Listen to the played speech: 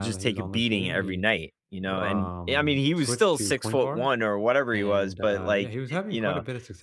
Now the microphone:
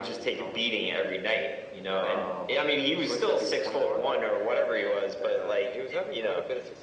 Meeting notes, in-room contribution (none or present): none